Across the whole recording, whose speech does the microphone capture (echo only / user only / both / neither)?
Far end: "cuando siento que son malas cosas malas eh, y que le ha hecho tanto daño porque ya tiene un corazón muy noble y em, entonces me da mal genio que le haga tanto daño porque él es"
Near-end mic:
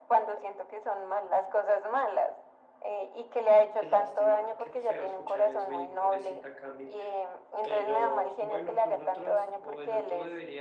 both